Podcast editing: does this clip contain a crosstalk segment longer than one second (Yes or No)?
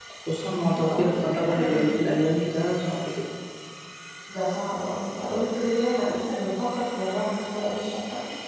Yes